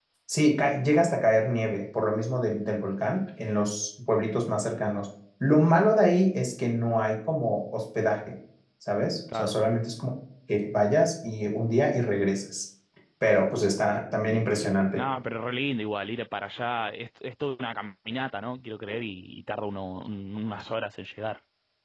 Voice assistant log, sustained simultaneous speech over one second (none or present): none